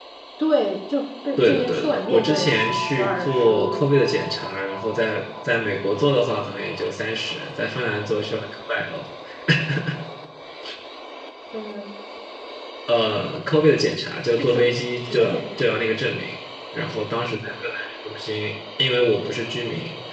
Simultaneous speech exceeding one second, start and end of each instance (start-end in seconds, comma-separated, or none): 1.4-4.0, 14.4-15.7